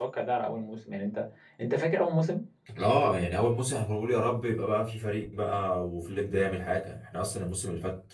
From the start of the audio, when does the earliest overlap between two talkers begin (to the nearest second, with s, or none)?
none